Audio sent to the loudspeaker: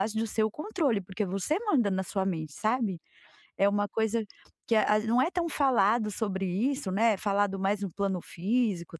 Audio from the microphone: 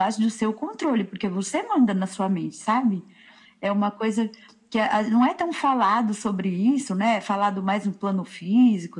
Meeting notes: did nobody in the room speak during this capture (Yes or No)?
Yes